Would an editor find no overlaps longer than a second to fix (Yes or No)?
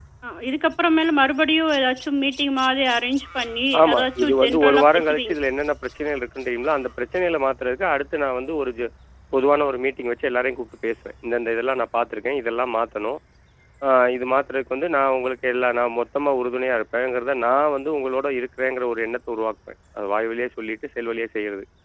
No